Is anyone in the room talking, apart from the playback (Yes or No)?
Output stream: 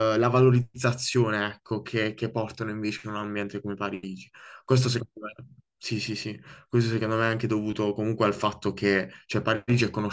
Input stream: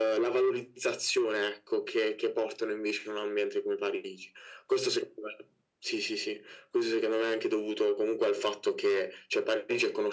No